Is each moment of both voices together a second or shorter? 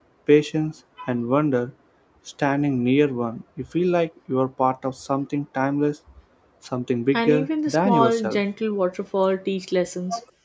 No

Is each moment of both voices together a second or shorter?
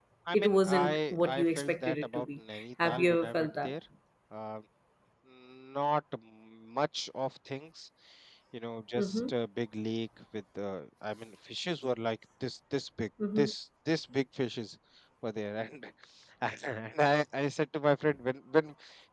No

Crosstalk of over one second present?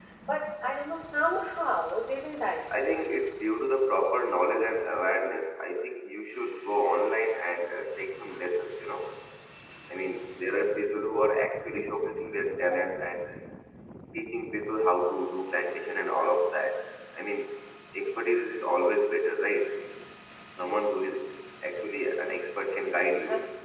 No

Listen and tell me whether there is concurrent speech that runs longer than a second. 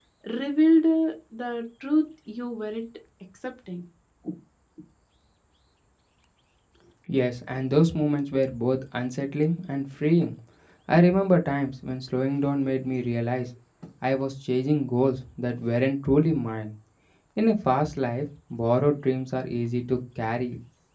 No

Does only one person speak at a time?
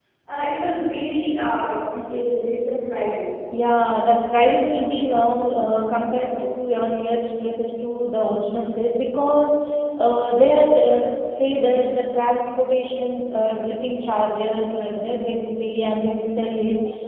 Yes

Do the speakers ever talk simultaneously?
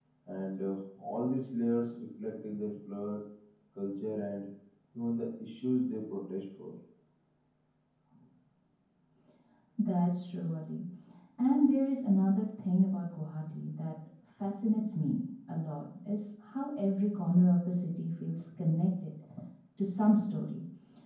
No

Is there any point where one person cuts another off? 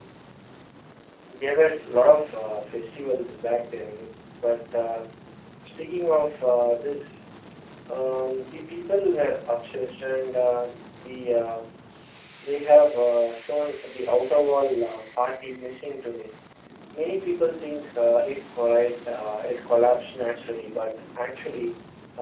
No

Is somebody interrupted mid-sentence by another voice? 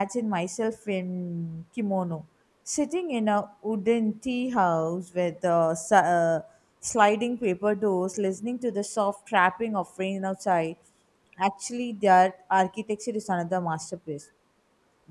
No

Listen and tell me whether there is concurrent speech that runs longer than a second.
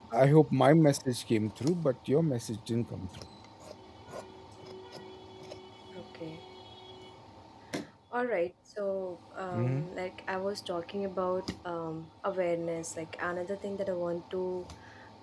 No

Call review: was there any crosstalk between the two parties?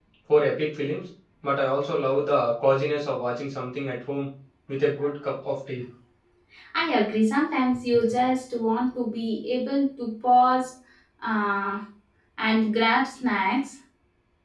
No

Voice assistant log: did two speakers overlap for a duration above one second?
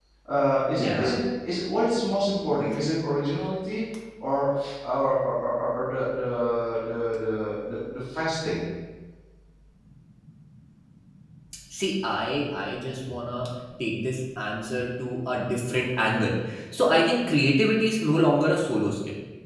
No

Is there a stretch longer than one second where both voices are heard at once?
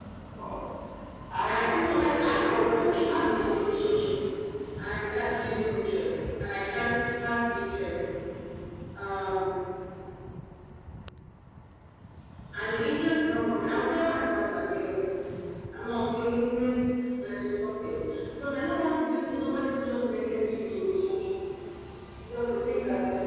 Yes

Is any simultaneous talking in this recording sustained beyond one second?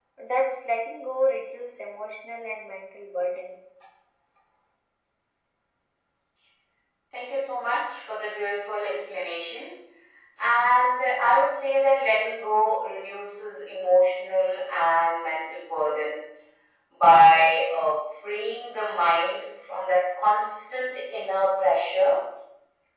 No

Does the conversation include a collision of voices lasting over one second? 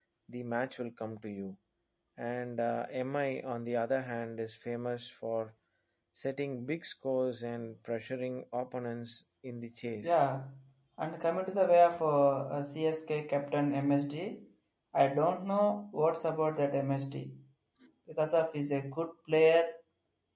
No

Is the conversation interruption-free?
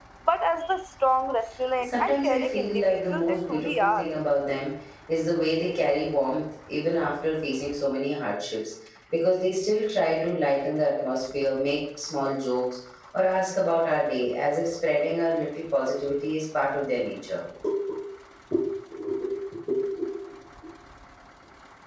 No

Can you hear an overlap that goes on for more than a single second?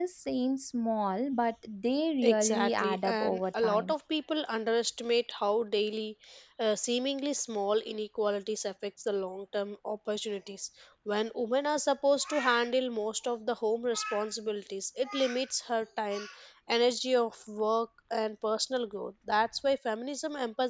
Yes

